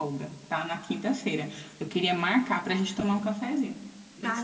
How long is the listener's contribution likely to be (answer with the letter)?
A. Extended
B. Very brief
A